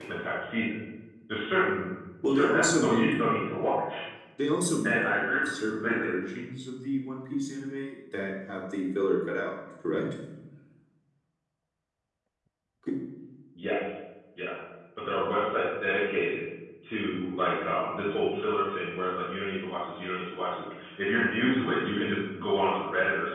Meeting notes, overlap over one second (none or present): present